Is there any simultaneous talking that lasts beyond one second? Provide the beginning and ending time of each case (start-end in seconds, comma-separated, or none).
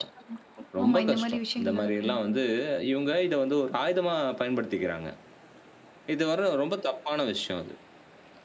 0.8-2.2